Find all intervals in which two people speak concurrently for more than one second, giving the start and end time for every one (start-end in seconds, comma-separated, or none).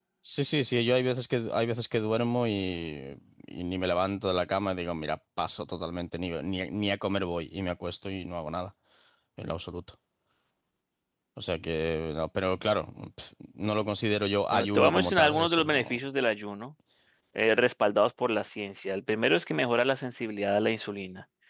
14.5-16.0